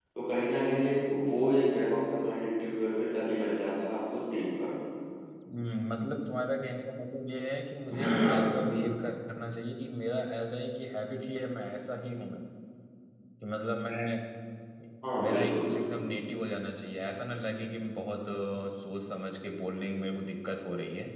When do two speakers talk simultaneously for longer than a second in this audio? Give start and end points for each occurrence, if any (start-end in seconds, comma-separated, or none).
none